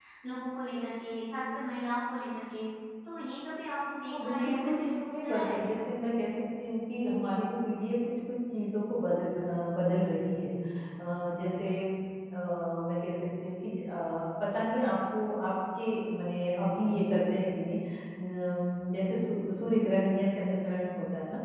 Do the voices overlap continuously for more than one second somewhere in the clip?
Yes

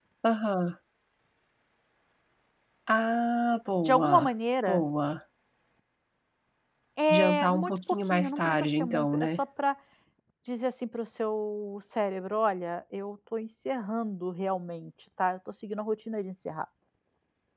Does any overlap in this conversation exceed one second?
Yes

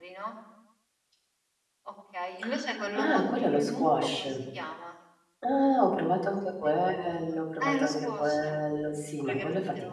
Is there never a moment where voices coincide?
No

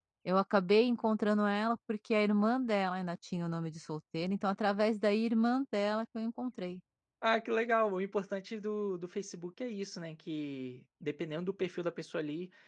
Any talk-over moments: No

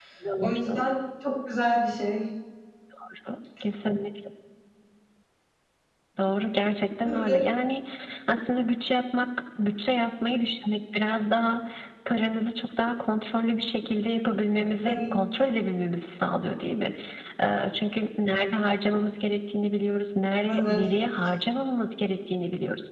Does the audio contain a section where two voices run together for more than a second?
No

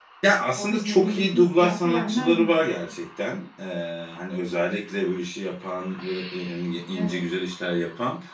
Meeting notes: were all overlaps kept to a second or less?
No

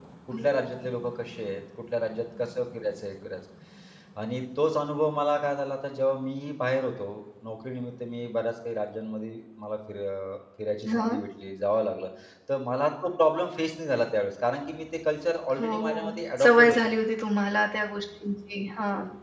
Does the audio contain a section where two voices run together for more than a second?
Yes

